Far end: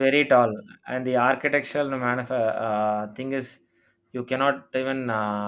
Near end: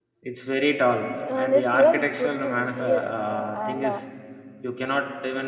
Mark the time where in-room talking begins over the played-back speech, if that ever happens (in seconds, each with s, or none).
1.2 s